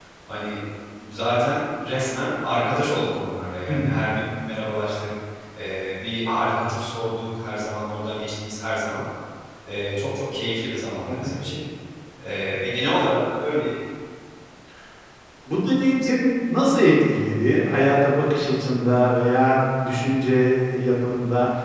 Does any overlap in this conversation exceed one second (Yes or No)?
No